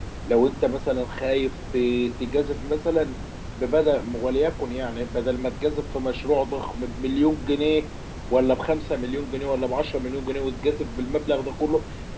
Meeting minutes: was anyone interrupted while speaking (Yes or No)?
No